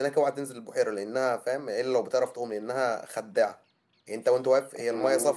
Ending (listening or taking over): listening